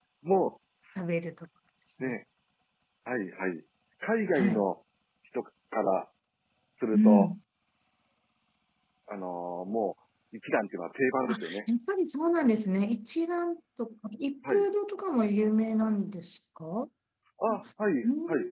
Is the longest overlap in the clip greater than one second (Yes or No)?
No